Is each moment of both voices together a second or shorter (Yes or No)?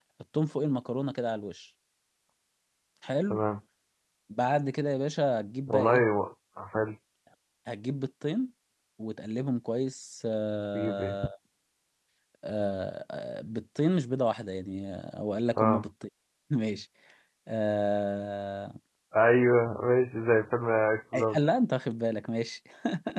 Yes